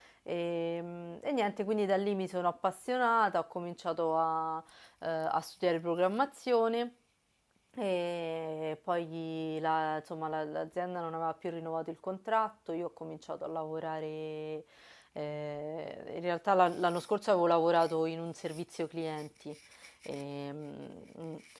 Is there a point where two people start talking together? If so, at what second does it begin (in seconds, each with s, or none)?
none